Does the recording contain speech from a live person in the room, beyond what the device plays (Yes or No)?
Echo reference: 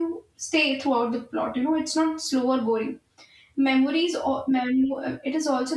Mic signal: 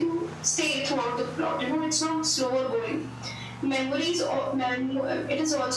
No